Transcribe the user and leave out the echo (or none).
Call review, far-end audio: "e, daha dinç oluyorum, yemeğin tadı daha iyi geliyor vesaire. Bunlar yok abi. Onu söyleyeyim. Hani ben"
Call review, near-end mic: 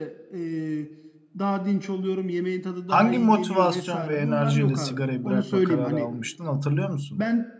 Hangi motivasyon ve enerjiyle sigarayı bırakma kararı almıştın hatırlıyor musun?